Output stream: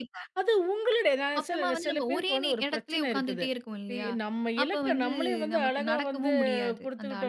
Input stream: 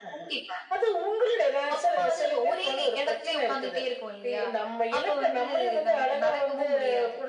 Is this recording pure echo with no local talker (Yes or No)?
Yes